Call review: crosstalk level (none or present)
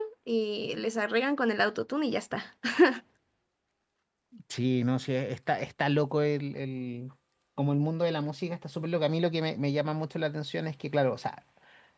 none